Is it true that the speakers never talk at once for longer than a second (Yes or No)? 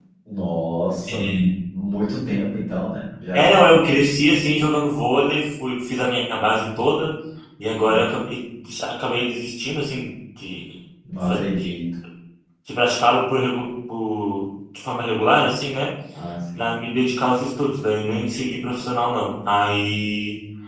Yes